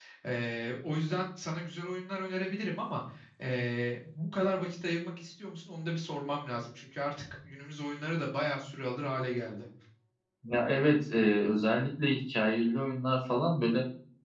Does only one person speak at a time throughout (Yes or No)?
Yes